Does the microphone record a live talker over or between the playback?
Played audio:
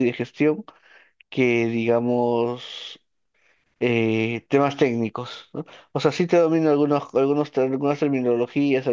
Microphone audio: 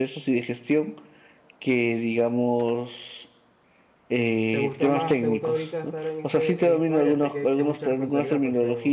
Yes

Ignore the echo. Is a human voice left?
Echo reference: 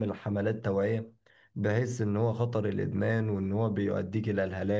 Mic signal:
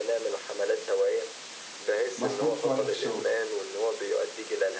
Yes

